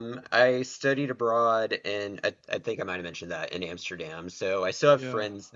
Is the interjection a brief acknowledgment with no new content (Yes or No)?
Yes